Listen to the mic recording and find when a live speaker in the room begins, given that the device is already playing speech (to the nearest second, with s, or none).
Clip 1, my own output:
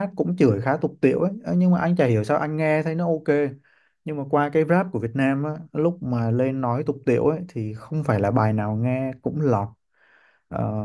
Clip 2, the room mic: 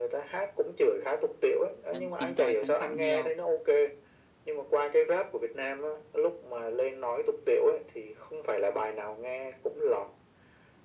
2 s